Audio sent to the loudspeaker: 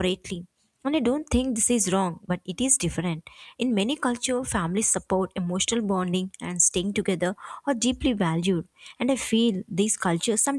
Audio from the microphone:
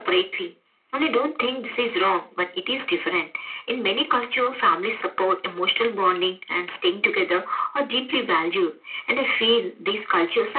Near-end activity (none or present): none